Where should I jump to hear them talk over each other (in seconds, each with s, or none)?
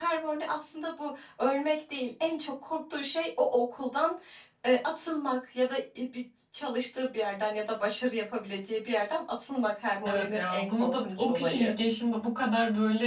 10.1 s